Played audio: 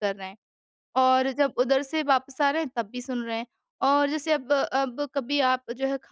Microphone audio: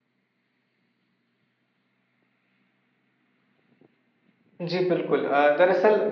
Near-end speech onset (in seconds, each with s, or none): 4.6 s